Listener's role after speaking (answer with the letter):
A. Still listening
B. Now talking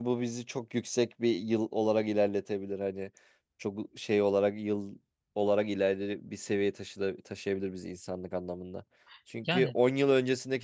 A